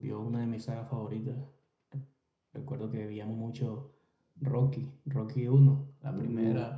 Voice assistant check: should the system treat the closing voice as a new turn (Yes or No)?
No